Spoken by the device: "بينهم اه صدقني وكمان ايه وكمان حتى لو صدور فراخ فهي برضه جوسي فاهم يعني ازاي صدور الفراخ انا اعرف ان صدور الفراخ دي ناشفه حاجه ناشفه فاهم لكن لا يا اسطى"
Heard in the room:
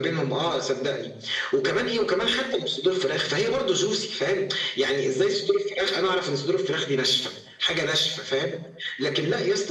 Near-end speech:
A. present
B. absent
B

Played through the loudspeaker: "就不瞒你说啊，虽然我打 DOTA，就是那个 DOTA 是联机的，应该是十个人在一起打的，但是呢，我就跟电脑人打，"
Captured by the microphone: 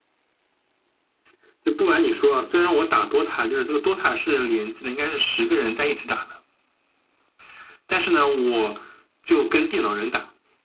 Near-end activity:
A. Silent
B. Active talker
A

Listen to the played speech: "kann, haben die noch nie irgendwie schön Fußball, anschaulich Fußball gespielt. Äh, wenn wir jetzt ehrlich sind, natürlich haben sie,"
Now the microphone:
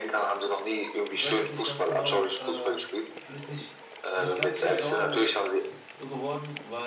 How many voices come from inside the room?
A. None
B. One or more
B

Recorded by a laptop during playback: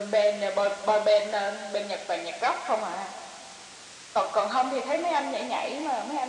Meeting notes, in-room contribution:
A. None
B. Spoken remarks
A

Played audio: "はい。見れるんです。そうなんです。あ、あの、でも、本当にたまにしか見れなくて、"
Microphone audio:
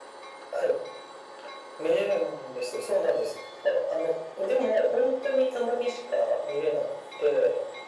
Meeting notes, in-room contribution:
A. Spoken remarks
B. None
B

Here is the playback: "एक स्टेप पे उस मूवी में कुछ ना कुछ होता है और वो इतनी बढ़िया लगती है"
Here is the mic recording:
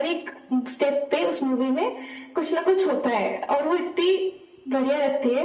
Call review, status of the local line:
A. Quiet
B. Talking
A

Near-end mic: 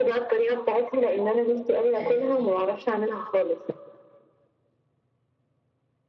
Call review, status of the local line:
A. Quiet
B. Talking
B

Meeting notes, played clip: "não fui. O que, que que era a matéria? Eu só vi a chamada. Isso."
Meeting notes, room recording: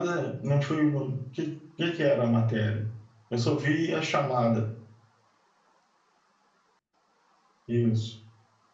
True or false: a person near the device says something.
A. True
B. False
B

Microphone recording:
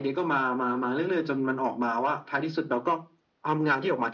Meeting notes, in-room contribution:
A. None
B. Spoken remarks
A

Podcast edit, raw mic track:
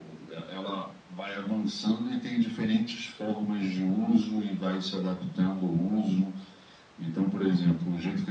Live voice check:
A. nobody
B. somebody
A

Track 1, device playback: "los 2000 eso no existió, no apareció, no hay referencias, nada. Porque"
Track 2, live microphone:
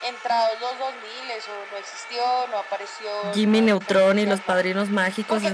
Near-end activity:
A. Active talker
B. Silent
A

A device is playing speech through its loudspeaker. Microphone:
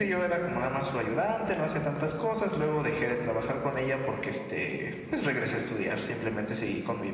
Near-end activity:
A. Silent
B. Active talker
A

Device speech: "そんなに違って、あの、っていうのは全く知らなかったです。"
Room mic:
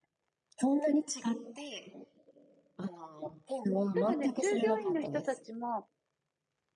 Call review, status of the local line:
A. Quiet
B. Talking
B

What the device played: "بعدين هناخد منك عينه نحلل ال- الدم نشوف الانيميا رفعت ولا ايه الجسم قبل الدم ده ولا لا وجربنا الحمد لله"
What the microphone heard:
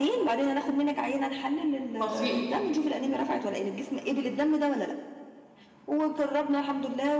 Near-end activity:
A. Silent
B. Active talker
B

